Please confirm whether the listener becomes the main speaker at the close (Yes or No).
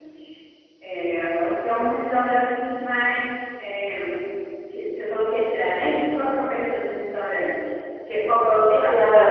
Yes